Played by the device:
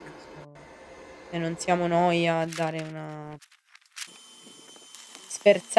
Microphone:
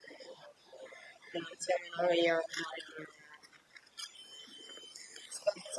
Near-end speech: none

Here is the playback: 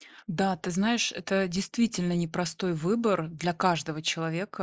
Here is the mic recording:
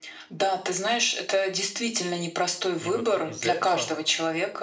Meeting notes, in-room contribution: present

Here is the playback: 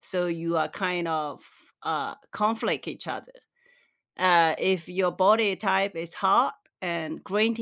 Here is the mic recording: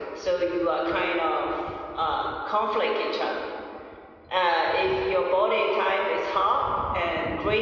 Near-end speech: none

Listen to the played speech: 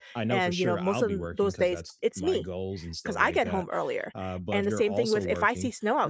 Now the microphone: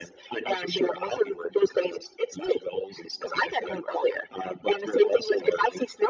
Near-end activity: none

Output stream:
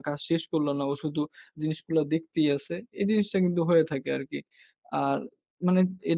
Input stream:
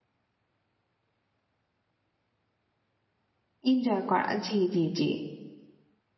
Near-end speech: present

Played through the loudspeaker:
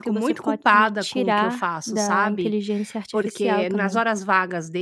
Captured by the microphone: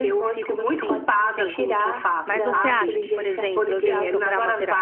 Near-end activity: present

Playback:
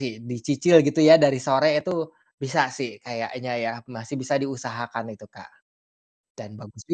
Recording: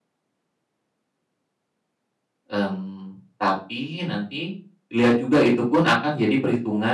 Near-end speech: present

